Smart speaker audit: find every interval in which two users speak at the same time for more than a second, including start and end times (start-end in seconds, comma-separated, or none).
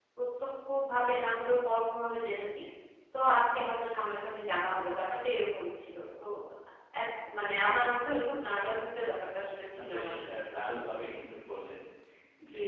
none